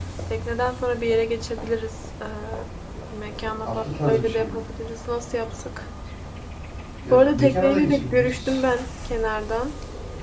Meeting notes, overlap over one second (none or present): present